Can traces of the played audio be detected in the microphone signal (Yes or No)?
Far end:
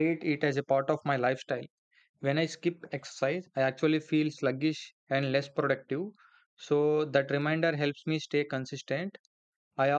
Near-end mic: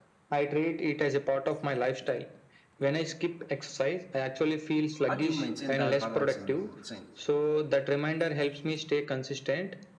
Yes